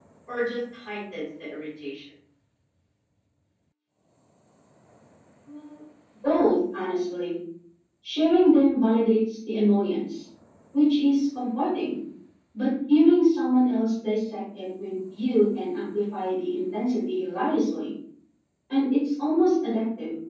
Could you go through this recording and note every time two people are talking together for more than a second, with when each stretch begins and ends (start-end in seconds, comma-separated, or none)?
none